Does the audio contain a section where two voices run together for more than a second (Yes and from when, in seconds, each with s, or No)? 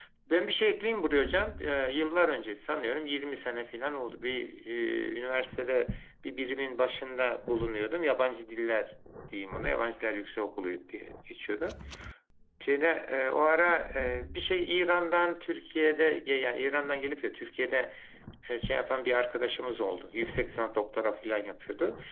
No